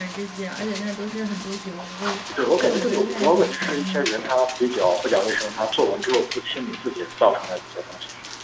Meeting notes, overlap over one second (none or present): present